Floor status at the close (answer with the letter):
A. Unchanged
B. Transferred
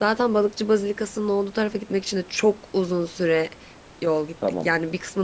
B